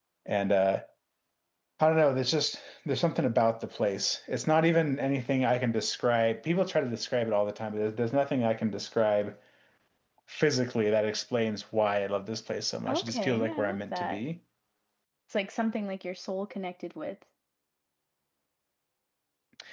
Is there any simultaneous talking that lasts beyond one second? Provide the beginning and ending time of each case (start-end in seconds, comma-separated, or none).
12.9-14.2